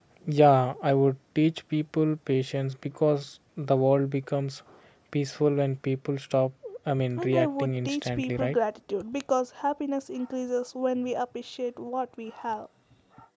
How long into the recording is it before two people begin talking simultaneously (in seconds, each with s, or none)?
6.9 s